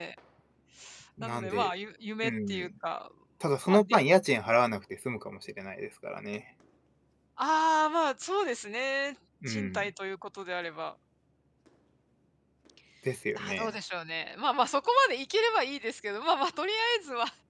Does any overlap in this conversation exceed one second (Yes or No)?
No